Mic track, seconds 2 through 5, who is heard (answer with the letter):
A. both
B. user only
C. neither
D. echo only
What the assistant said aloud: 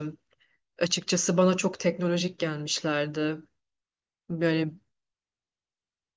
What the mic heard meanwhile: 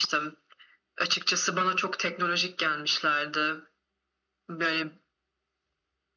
D